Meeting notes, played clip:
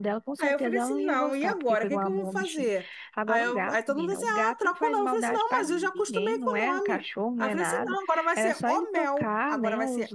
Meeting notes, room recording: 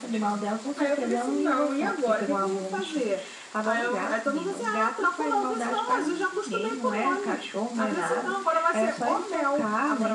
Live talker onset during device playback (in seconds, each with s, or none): none